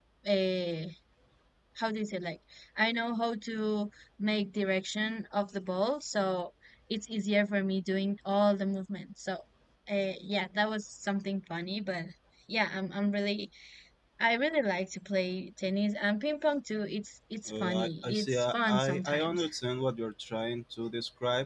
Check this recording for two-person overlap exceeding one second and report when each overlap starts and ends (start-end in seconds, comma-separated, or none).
17.5-19.4